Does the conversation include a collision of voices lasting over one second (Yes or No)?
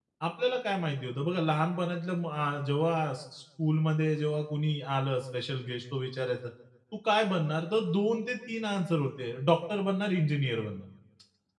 No